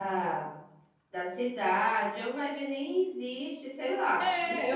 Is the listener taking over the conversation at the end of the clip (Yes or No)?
Yes